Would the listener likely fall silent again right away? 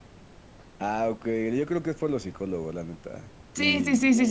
No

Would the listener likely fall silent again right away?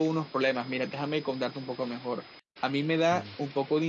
Yes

